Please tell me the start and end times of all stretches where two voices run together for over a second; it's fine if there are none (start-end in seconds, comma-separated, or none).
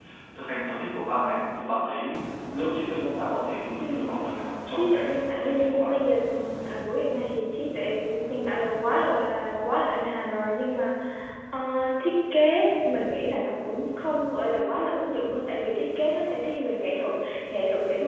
4.7-5.9